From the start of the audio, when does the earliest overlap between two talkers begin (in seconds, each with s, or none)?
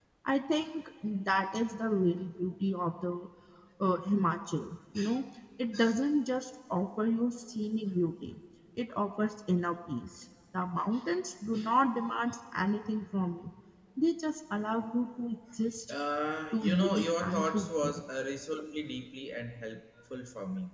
16.5 s